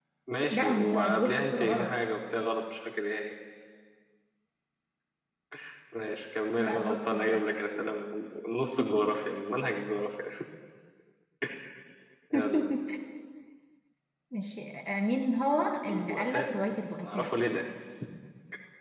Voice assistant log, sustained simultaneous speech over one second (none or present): present